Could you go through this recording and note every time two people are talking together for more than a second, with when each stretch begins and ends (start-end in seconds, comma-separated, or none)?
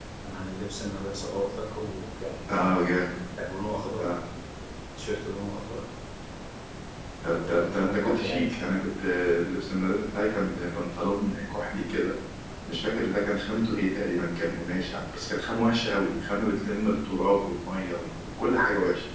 7.3-8.5